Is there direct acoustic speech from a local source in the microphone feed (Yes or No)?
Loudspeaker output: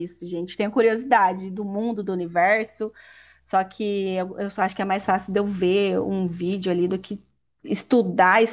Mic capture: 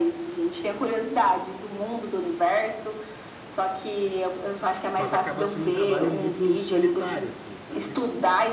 Yes